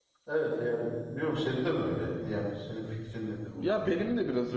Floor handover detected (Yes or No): Yes